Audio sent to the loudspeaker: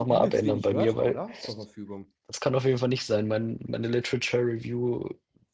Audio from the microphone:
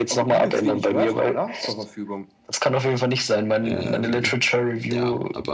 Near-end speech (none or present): present